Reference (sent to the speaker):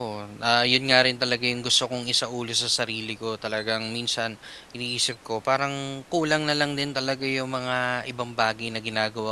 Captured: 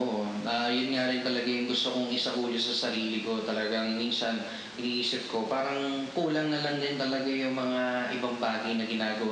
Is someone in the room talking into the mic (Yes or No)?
No